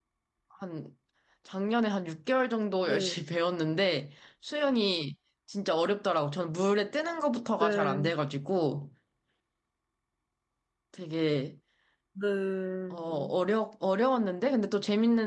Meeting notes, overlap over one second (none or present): none